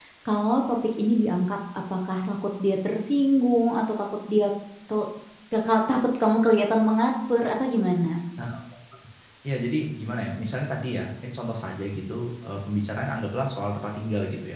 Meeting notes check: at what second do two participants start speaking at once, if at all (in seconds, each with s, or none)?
none